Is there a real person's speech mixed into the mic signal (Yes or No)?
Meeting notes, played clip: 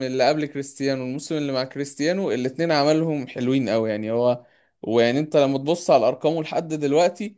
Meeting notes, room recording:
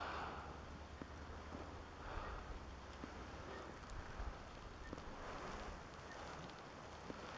No